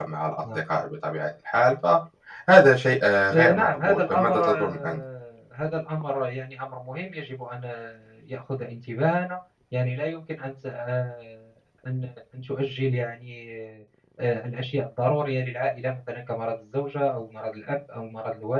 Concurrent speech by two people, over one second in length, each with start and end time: 3.3-5.0

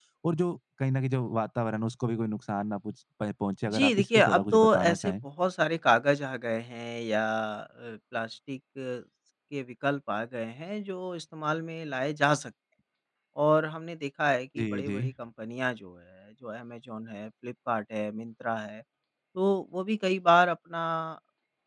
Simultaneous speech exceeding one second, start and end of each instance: 3.6-5.2

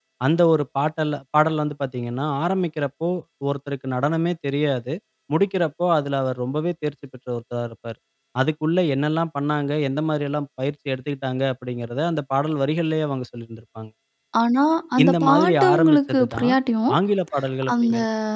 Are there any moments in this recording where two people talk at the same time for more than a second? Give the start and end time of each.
15.0-16.5

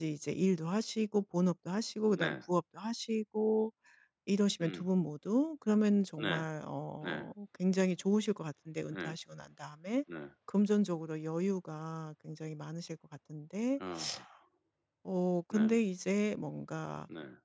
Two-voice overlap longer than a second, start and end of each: none

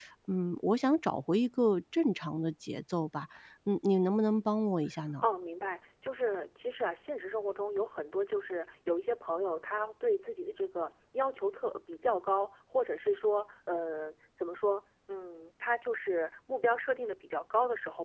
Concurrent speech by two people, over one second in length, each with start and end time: none

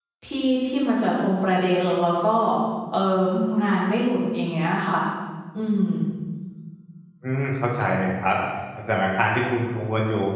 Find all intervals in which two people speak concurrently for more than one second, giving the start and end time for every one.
none

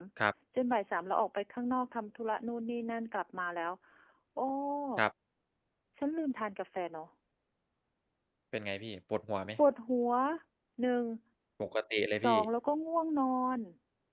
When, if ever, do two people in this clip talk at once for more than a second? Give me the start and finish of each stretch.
none

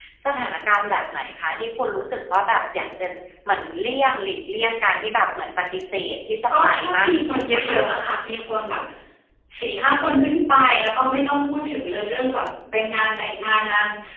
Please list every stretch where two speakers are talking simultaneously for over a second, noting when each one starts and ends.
6.6-7.8

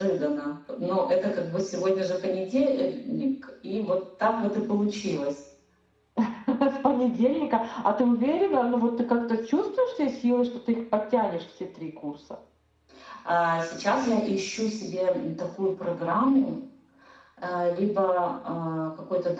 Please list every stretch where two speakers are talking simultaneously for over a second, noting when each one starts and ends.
none

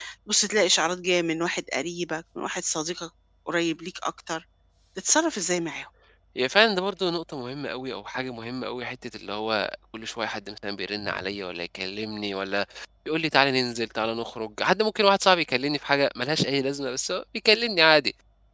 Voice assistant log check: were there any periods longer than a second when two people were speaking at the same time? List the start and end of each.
none

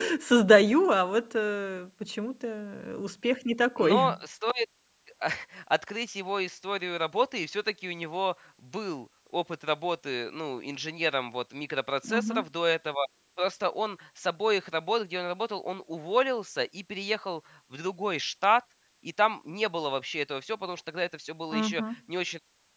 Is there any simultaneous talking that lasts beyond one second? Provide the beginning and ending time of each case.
none

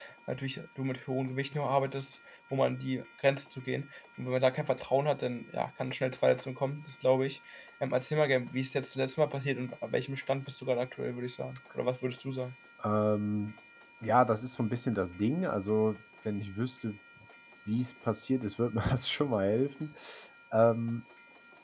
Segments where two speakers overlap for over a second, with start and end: none

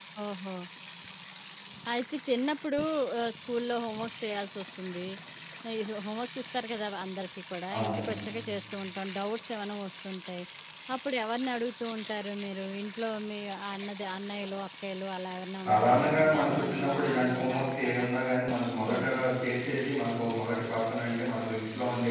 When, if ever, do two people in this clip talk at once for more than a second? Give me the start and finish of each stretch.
15.7-18.1

